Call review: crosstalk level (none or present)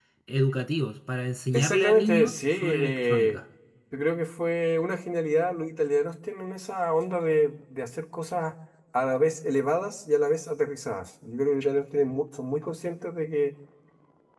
present